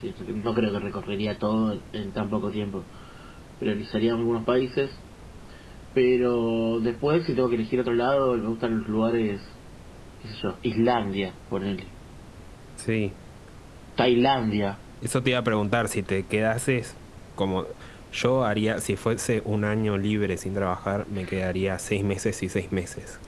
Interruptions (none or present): none